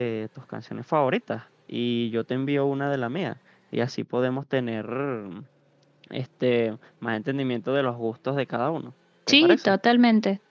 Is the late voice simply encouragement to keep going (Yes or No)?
No